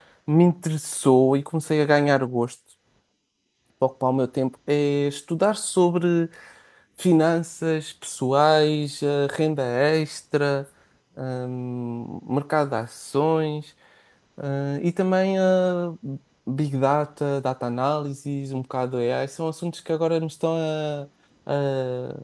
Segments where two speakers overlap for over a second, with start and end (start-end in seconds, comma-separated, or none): none